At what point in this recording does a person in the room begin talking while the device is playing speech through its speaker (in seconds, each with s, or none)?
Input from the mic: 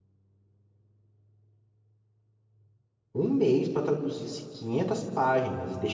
3.1 s